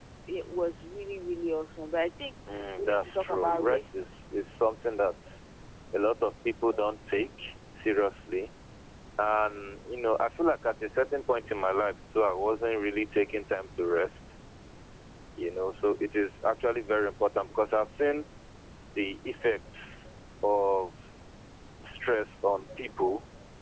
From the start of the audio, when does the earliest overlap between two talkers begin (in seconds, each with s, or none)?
2.5 s